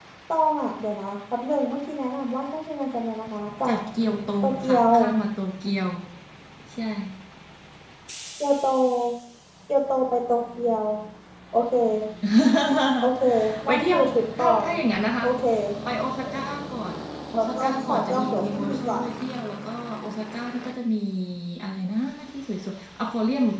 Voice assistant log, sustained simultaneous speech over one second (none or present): present